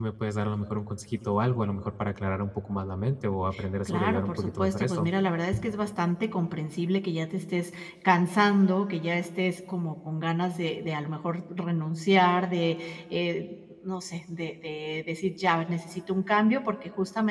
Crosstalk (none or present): present